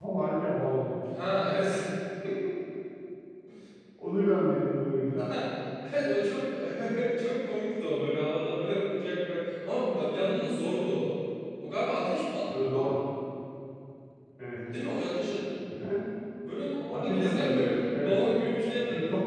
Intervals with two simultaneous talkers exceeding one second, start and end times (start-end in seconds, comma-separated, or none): 16.9-18.2